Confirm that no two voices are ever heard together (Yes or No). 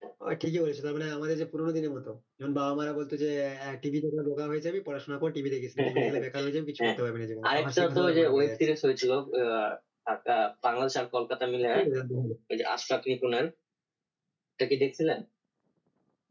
No